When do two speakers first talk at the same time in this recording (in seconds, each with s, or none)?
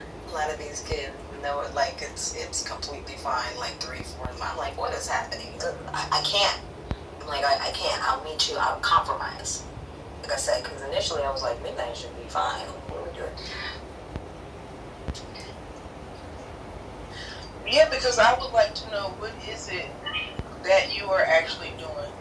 none